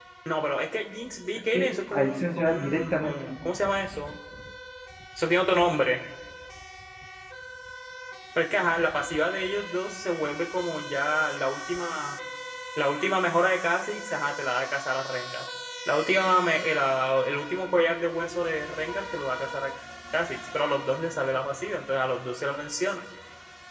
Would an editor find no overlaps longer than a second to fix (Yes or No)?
No